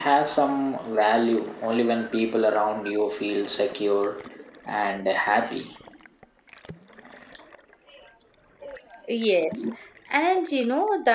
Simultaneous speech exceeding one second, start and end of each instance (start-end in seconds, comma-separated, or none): none